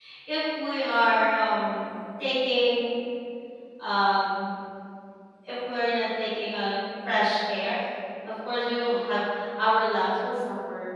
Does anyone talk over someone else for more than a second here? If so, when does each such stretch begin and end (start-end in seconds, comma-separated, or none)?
none